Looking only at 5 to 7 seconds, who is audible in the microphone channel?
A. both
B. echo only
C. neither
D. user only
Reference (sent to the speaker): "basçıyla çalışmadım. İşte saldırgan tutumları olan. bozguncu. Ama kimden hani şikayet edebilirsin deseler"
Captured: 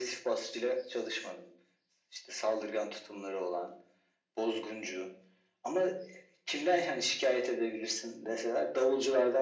B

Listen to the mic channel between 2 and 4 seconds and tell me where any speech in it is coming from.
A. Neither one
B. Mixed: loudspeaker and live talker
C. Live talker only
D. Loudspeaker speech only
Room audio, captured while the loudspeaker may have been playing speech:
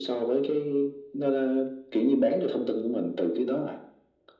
D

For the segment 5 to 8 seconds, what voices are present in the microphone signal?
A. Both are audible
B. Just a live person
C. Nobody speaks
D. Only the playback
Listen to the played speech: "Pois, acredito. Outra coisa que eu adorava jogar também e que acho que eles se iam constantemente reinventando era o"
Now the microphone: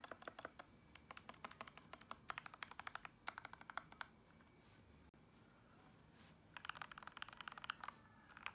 C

